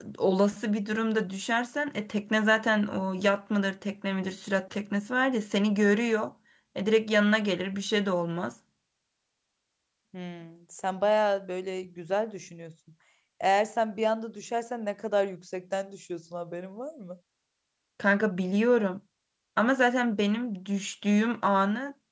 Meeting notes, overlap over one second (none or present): none